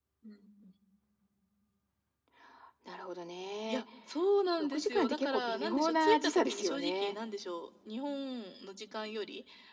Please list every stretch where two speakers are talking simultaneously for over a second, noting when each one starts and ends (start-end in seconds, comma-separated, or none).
4.6-7.2